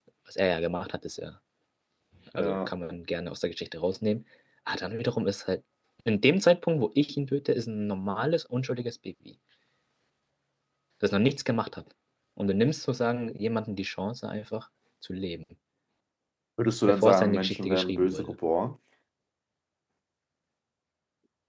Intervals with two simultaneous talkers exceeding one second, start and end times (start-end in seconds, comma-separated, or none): 16.9-18.3